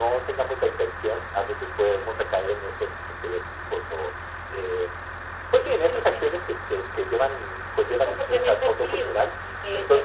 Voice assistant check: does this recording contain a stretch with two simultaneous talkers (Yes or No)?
Yes